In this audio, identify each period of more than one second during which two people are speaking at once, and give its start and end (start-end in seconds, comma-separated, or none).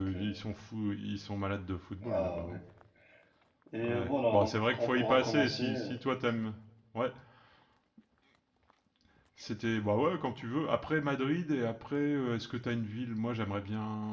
3.9-5.8